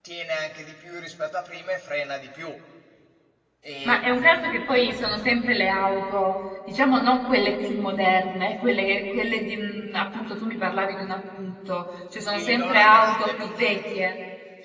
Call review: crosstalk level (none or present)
present